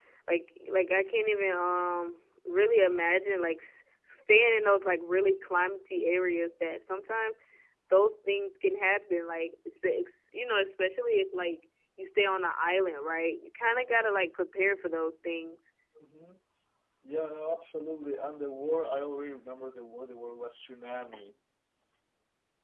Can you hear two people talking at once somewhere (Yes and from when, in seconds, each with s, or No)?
No